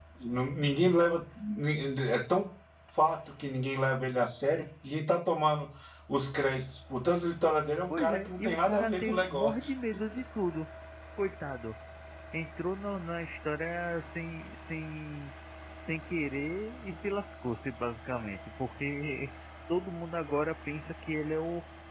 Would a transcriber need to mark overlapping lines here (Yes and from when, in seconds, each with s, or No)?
Yes, from 7.9 s